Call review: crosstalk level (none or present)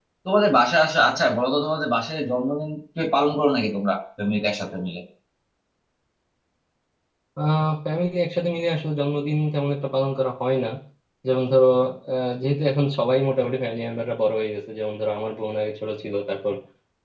none